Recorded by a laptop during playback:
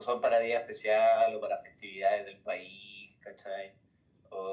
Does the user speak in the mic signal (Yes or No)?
No